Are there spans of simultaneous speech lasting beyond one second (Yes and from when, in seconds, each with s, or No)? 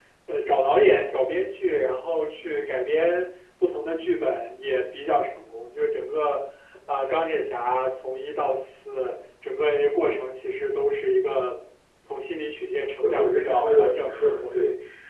Yes, from 13.0 s